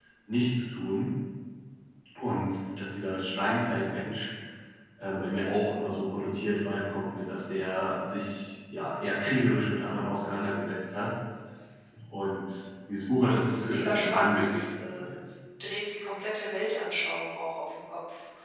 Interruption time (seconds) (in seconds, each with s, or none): 13.5 s